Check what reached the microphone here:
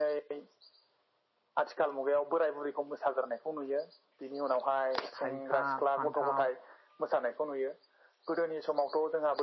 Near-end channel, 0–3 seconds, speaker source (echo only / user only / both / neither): echo only